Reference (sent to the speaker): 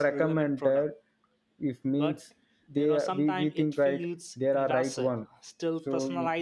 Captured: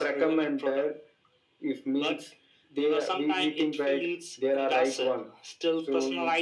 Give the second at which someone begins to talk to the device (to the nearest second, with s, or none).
none